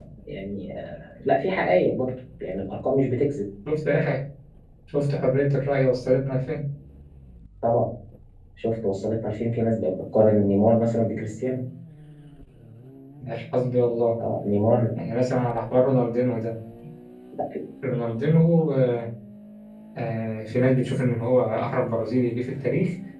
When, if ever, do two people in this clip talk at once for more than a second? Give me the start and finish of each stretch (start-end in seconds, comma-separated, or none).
none